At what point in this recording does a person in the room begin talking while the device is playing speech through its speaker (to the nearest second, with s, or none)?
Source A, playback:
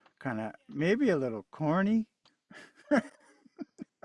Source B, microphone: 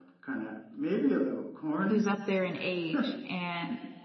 2 s